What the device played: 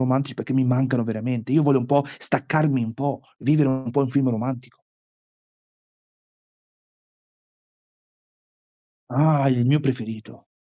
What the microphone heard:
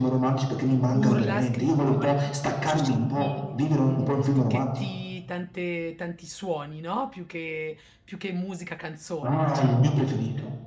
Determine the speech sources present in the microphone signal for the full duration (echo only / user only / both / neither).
both